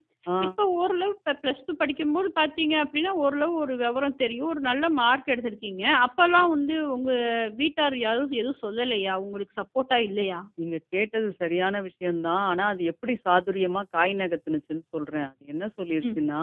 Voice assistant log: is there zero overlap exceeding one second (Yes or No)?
Yes